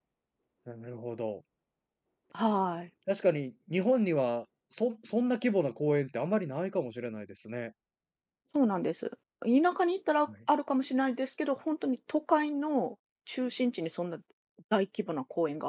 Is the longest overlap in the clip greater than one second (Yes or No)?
No